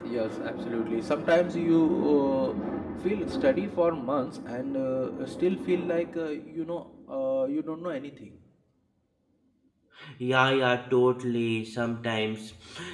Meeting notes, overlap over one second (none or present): none